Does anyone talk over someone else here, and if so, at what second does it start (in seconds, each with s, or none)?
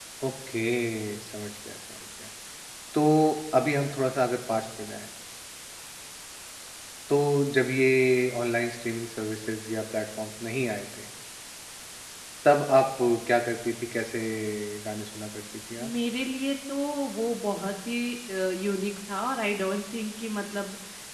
none